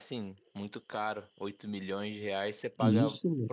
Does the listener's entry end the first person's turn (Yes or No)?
No